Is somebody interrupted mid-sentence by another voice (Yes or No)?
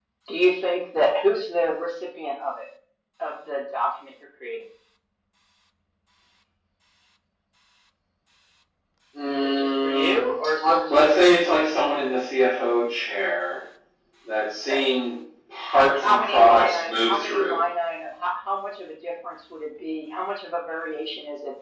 Yes